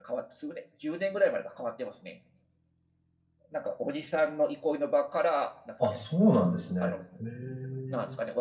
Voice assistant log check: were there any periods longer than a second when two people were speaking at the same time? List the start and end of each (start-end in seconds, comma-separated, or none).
none